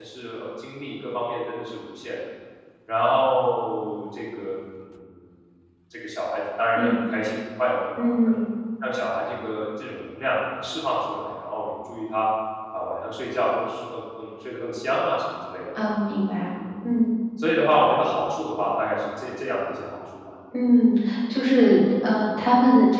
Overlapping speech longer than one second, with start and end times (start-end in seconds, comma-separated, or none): none